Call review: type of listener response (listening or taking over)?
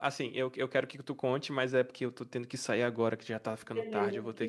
taking over